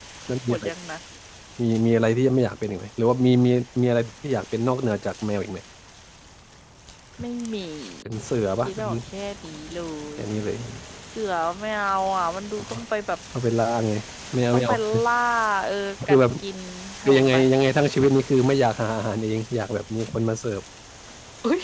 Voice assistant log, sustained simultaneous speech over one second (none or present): none